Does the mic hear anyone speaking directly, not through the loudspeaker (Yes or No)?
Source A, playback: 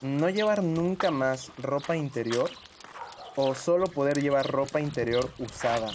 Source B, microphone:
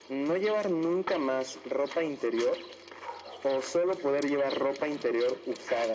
No